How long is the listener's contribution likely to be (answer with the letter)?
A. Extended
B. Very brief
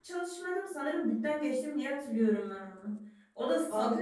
B